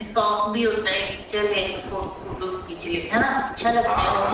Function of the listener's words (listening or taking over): taking over